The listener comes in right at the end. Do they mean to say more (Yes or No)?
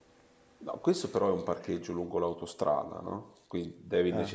No